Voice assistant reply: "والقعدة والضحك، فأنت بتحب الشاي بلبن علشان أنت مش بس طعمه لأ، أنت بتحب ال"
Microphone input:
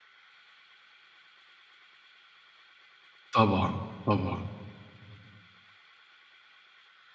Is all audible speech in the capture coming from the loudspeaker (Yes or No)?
No